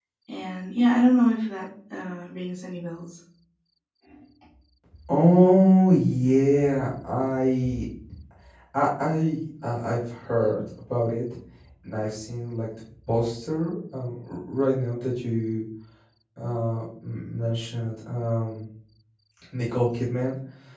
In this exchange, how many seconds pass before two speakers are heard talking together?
none

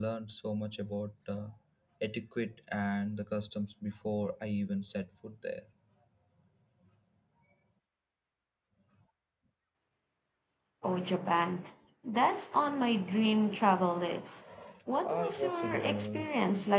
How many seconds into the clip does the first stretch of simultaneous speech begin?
15 s

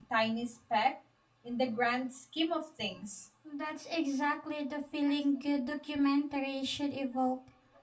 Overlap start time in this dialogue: none

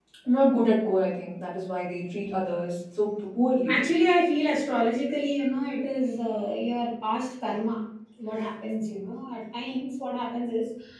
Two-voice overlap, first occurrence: none

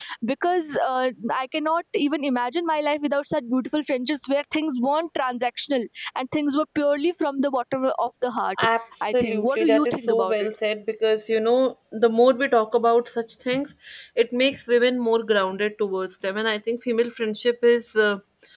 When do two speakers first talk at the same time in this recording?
9 s

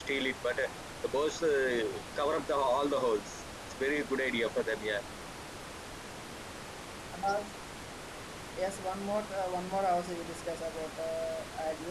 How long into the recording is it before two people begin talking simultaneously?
none

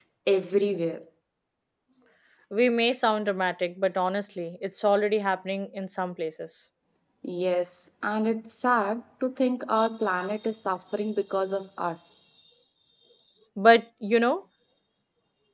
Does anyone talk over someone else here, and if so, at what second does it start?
none

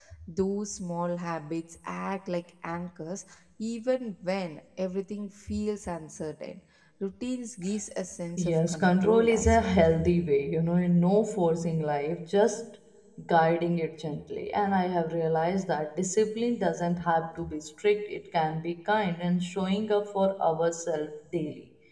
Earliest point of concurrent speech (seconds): 8 s

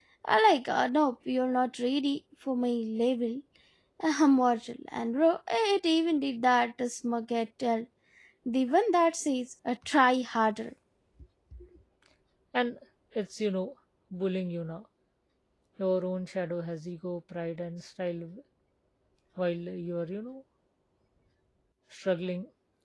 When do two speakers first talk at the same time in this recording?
none

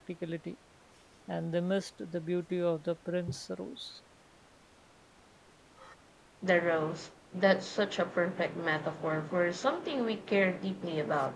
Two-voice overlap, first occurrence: none

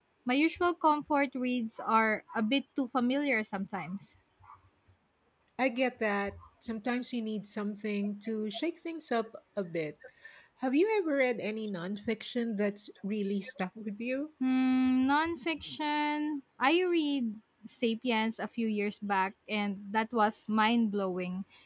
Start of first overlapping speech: none

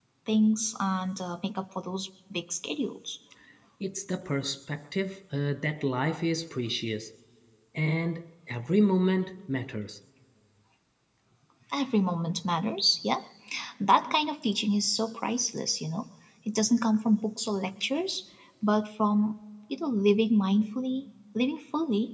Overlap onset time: none

